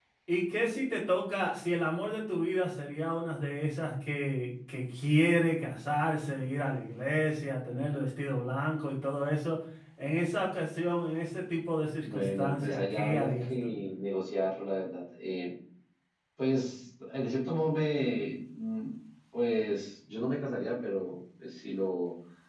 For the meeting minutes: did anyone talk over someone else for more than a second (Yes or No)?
Yes